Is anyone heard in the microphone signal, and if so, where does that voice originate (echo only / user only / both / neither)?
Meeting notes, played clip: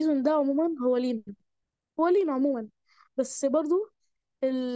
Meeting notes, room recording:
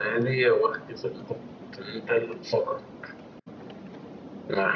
user only